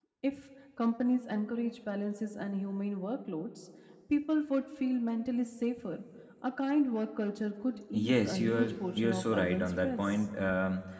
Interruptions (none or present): present